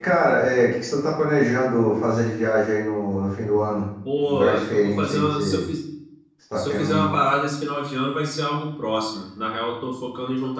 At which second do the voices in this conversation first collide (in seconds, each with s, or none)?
4.3 s